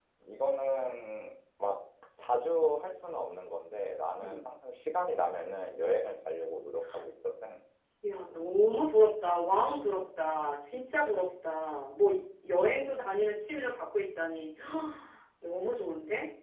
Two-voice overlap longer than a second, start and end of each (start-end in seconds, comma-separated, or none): none